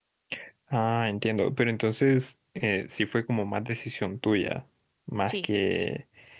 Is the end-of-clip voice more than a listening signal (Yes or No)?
No